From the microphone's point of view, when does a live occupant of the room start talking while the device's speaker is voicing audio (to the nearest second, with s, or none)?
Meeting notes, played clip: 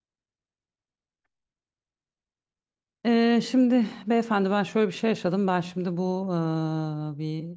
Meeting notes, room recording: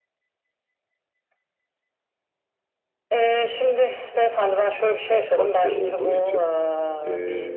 5 s